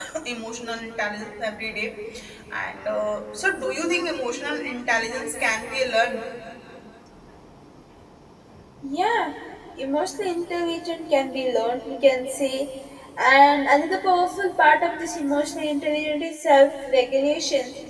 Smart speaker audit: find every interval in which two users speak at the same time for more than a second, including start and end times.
none

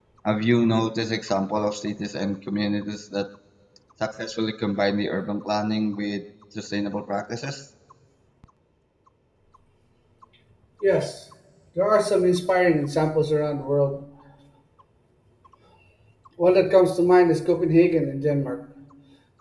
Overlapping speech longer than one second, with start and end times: none

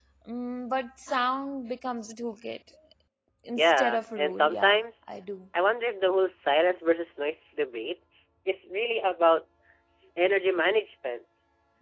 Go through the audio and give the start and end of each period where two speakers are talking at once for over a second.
3.6-4.8

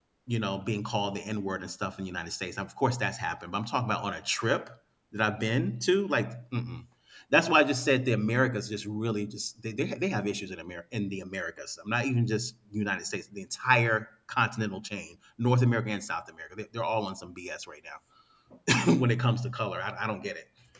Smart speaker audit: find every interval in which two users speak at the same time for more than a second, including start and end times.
none

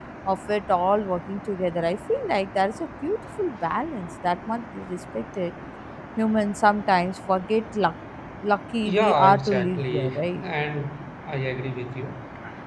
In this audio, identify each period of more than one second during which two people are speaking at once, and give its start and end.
8.8-10.4

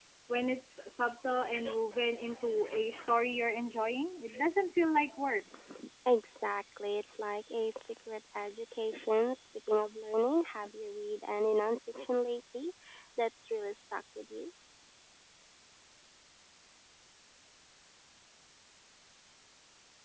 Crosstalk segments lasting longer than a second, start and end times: none

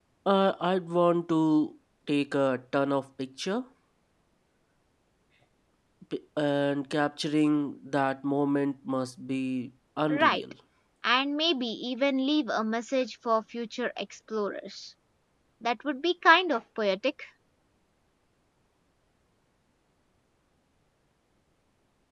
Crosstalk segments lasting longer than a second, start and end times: none

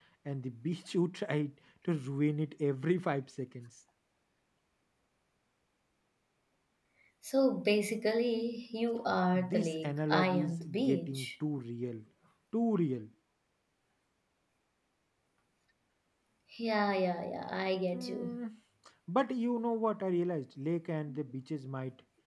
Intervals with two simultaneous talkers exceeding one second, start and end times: 9.3-11.3

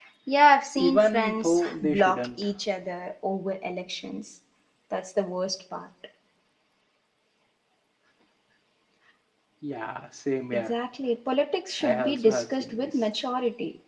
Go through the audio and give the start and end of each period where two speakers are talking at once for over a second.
0.8-2.3, 11.8-13.0

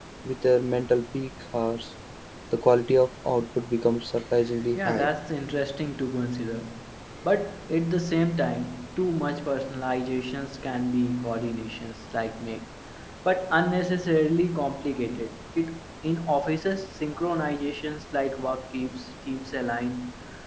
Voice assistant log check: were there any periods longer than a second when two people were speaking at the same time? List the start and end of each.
none

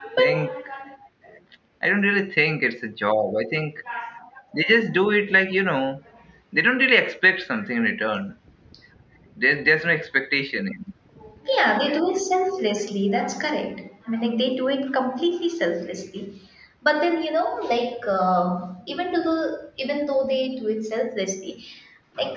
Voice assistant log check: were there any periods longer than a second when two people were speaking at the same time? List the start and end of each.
none

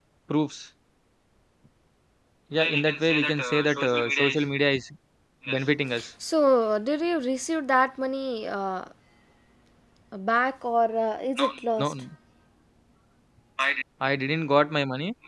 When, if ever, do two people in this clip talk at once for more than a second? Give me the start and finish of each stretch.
2.6-4.5

